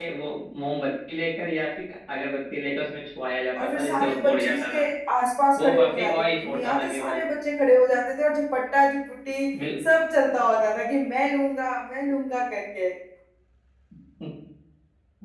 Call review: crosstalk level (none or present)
present